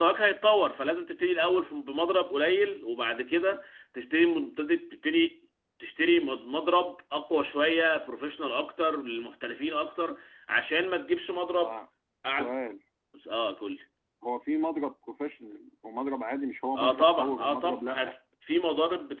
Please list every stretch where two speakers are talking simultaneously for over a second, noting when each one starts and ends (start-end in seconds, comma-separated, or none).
16.8-18.1